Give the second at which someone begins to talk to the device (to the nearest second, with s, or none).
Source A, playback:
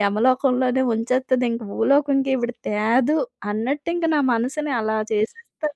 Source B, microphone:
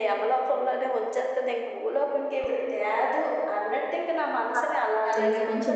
5 s